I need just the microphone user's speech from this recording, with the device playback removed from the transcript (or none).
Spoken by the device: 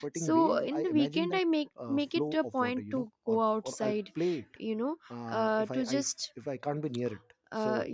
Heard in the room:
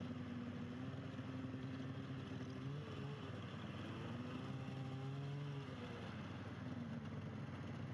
none